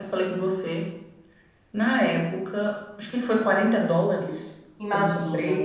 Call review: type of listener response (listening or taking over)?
listening